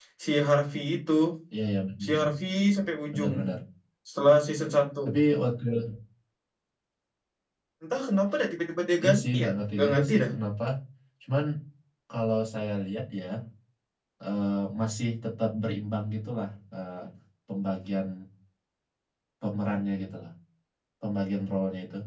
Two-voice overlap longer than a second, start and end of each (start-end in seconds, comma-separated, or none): 9.0-10.3